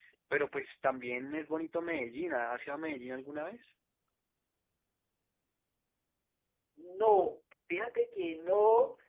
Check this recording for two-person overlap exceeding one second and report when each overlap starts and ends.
none

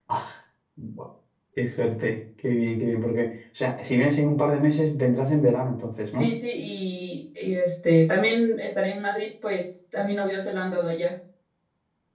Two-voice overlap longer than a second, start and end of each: none

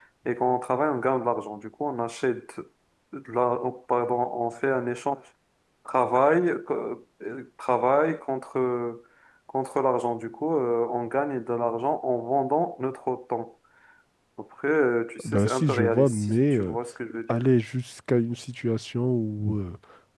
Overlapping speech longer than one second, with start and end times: 15.2-16.8

